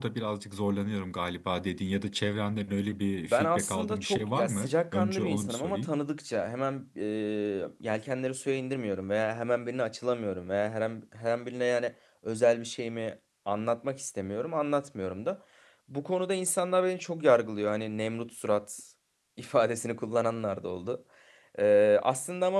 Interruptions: present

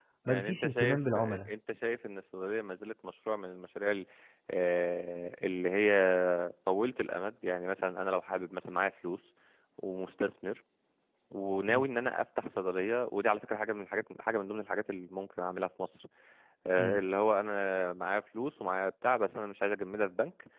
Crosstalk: present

